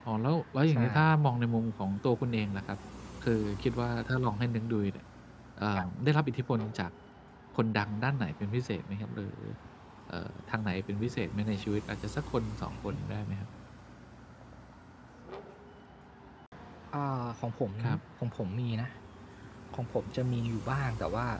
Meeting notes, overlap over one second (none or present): none